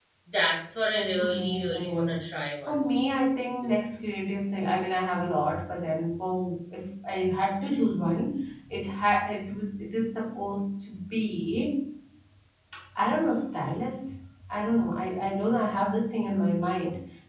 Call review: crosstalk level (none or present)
present